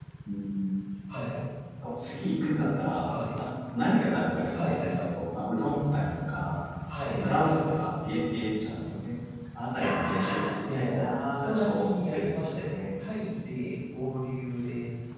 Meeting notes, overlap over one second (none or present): present